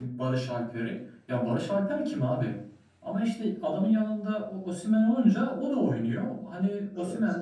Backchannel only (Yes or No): Yes